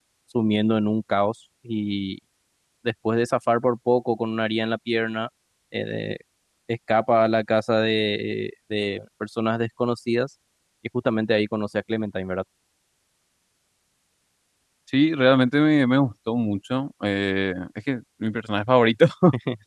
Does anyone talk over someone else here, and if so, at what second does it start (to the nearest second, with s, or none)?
none